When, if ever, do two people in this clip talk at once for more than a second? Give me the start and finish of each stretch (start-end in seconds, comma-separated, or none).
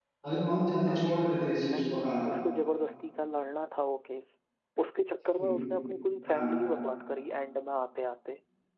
none